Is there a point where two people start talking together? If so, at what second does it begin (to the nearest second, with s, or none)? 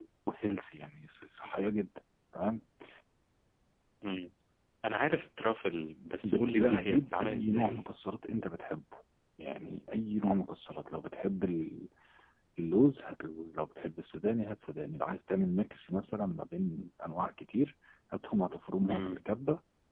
6 s